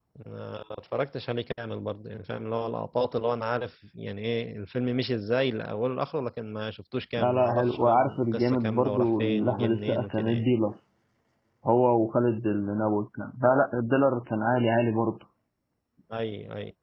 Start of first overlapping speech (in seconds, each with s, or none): 7.2 s